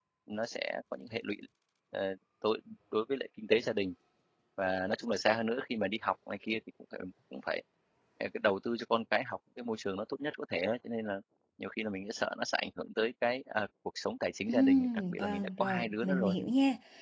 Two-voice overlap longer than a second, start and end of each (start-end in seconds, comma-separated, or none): 14.5-16.4